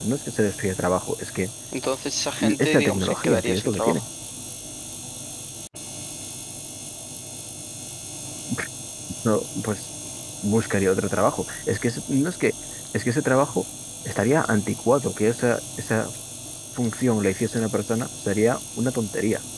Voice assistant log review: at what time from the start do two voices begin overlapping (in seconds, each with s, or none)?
2.4 s